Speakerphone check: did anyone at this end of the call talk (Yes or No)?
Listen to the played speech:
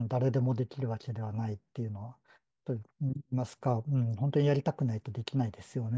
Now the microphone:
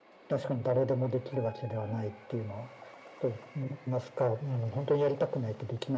No